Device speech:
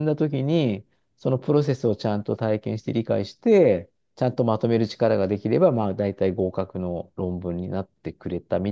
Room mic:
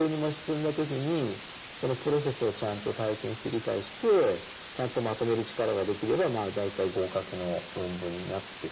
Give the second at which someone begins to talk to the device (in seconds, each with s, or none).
none